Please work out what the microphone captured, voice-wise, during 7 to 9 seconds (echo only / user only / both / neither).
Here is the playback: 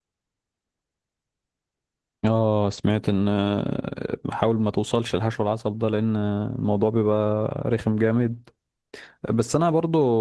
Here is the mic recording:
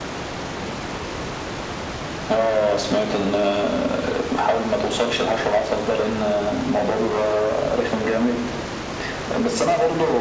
echo only